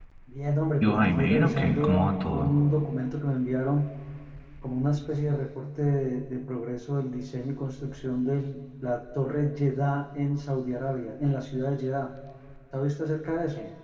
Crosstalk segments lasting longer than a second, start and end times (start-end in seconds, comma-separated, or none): 0.8-2.5